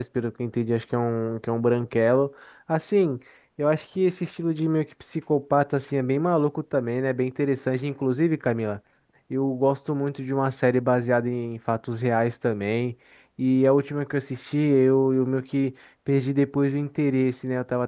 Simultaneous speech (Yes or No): No